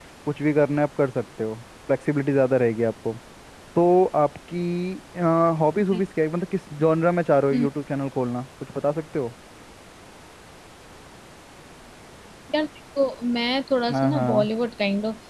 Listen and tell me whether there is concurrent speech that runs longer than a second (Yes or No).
No